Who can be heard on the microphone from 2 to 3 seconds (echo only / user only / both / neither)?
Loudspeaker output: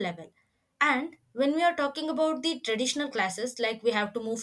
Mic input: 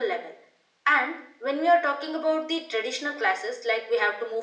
echo only